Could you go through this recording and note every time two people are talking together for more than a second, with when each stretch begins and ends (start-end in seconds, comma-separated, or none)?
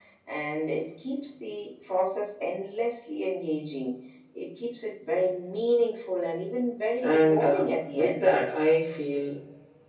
7.0-8.3